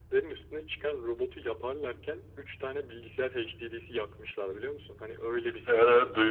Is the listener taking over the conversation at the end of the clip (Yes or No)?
Yes